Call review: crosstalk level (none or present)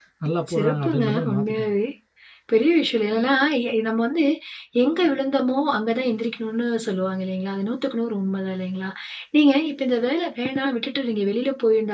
present